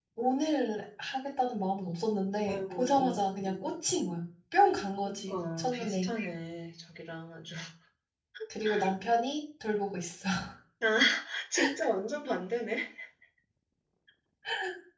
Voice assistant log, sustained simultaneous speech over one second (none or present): present